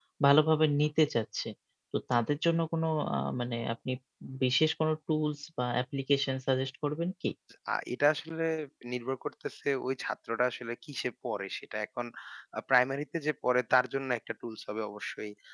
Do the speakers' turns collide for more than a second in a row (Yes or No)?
No